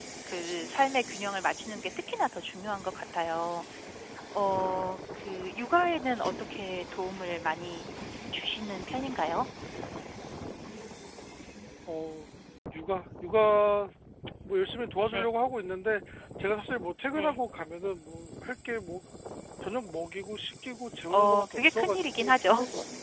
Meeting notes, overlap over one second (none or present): present